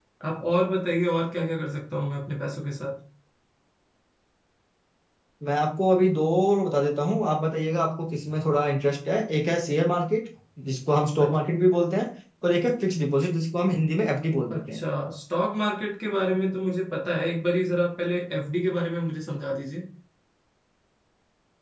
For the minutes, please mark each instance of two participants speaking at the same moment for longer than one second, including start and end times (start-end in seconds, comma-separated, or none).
none